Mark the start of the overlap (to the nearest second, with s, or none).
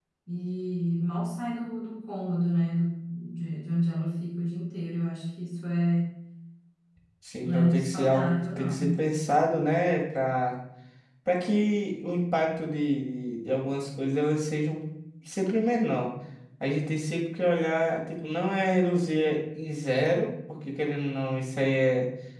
7 s